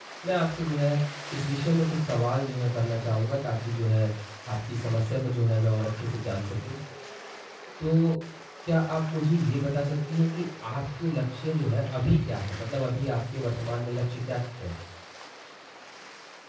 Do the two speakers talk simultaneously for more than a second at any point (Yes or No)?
No